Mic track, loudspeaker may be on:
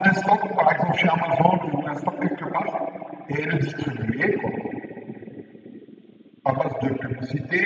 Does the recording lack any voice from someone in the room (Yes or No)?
Yes